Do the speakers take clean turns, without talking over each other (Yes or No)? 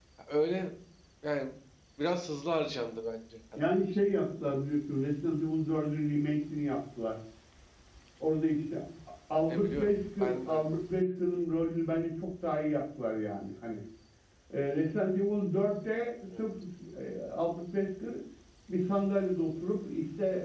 No